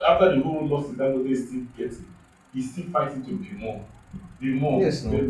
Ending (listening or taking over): listening